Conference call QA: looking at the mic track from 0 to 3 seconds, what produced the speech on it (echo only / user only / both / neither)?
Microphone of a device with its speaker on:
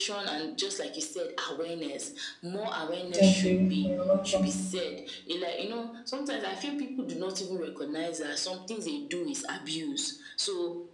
echo only